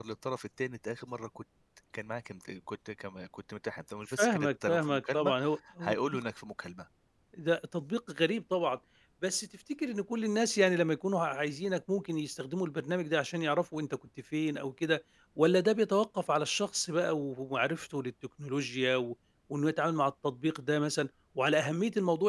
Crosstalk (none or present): present